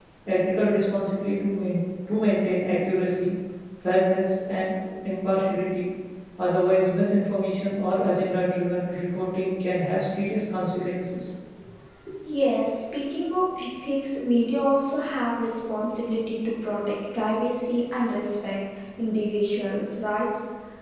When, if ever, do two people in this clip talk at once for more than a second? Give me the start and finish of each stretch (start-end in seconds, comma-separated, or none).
none